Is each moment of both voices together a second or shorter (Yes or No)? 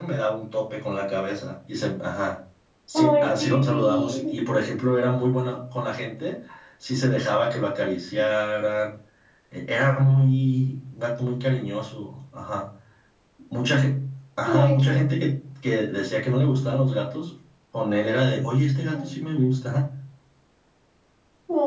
No